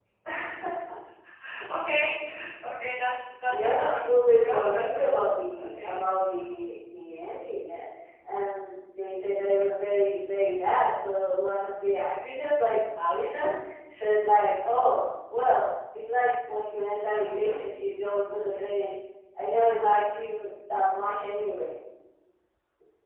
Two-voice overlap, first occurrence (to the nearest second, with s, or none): 3 s